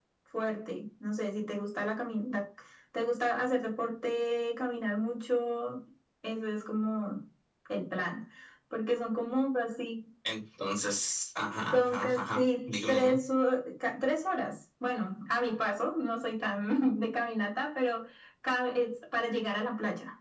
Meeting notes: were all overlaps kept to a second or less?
No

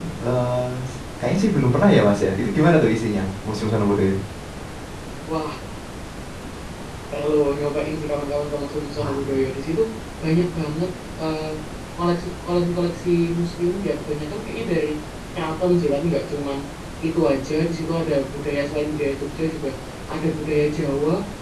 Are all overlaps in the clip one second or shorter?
Yes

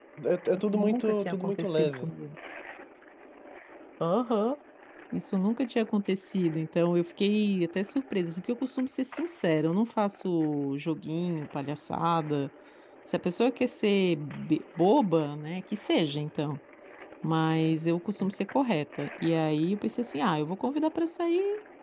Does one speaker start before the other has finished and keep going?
Yes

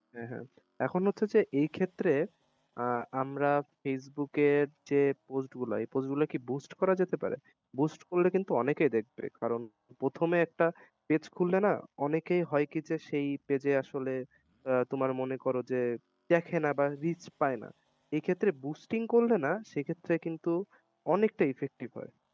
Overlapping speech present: No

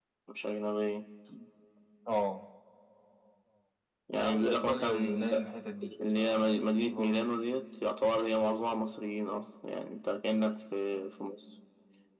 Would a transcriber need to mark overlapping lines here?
Yes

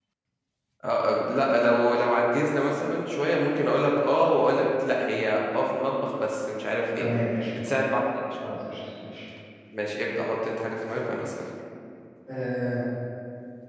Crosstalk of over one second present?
No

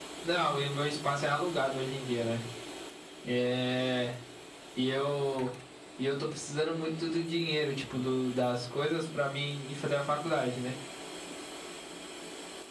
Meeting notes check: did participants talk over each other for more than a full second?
No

